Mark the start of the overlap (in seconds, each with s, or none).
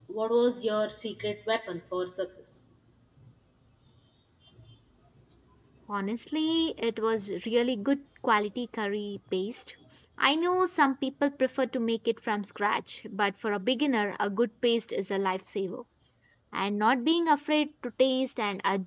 none